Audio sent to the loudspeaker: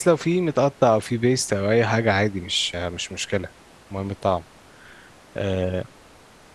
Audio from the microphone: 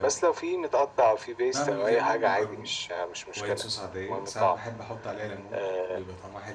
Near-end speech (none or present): present